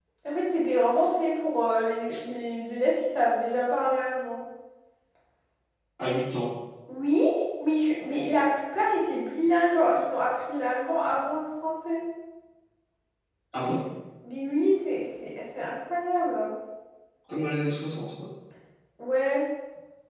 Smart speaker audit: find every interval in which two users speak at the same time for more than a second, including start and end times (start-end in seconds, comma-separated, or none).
none